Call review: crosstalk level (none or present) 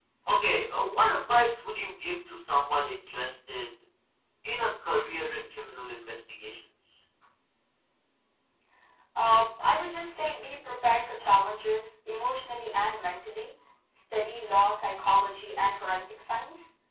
none